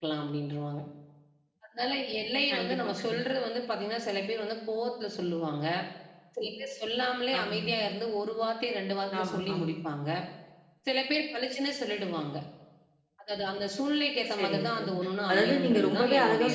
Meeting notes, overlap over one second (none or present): present